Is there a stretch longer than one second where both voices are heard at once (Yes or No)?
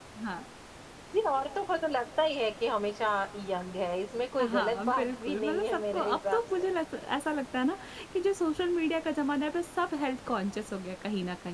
Yes